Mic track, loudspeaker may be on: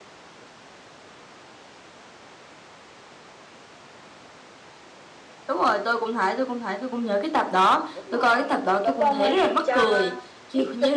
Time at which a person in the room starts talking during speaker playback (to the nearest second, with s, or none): 8 s